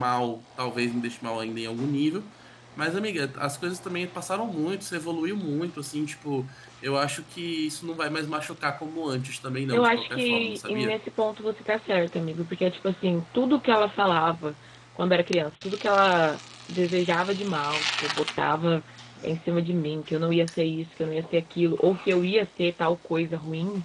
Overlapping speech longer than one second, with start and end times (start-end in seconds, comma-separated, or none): 9.7-10.9